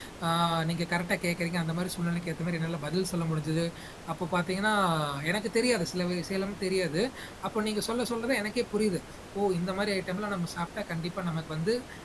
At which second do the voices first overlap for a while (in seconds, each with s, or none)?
none